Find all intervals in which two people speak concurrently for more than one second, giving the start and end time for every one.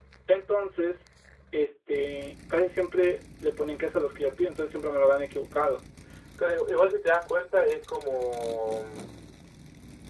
none

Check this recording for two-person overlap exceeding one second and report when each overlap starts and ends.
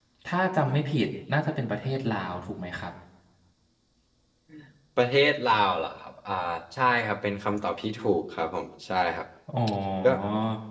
none

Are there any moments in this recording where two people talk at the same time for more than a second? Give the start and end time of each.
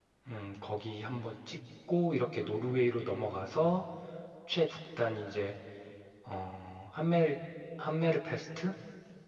none

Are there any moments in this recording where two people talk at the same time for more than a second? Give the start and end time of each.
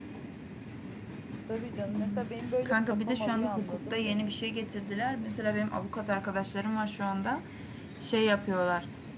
2.6-4.4

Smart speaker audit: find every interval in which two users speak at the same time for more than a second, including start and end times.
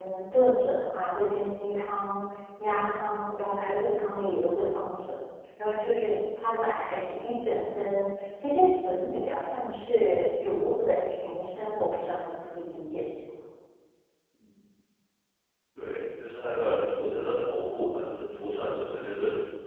none

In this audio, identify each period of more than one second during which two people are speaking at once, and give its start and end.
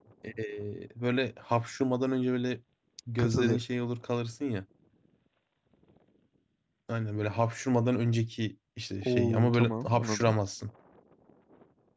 9.0-10.3

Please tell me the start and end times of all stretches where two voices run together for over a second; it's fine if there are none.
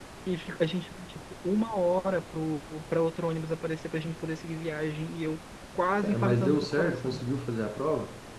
6.0-7.2

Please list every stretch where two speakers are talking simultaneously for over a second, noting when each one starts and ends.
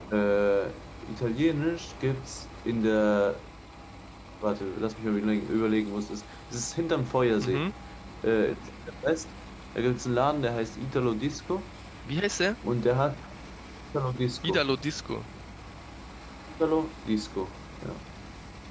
none

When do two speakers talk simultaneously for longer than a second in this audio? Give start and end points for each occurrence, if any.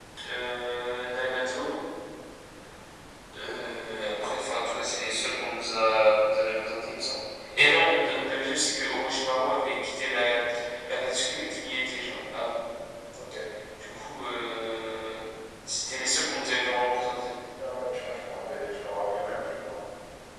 none

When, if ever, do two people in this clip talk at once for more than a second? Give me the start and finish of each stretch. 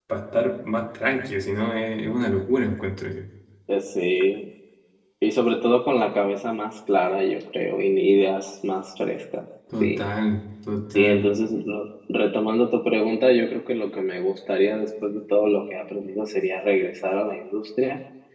none

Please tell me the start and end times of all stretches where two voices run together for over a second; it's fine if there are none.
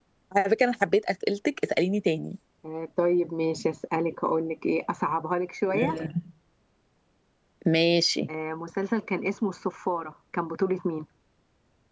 none

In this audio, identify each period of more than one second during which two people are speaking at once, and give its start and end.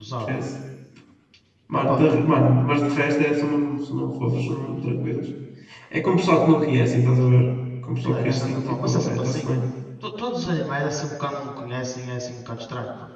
8.0-9.5

